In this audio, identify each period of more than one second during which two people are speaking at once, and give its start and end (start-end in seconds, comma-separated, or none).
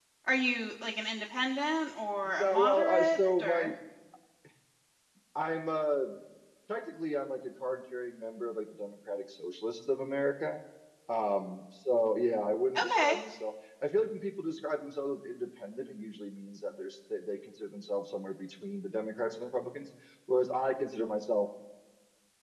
2.4-3.7